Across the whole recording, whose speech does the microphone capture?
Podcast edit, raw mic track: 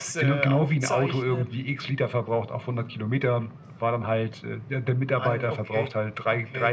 echo only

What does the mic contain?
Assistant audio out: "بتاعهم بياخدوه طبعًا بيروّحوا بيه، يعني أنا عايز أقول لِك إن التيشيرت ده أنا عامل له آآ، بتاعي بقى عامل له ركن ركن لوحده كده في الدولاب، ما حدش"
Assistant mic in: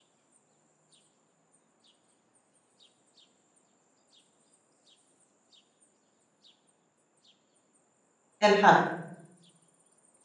user only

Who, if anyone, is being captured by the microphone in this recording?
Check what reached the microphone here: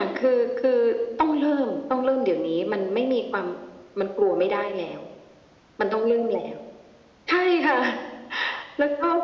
echo only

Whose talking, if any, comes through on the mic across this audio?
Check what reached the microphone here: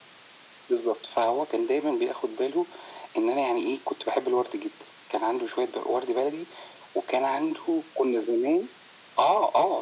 echo only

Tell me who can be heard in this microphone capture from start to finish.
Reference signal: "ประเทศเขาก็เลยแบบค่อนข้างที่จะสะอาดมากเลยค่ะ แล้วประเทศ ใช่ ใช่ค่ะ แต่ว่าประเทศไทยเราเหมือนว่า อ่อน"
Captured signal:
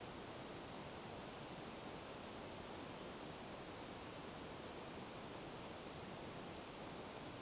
neither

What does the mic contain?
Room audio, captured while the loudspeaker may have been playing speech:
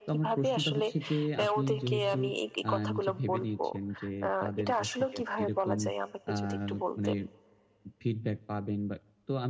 both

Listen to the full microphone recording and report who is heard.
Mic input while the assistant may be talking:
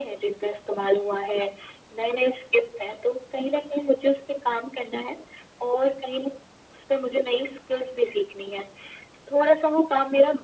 echo only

